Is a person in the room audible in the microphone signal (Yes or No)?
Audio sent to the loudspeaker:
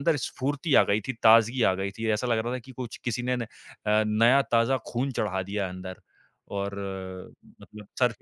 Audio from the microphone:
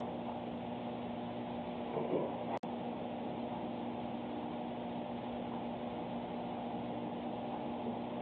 No